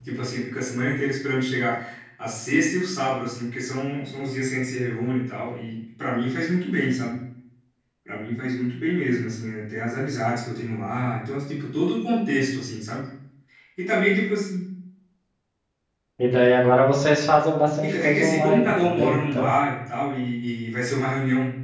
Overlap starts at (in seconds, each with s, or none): 17.8 s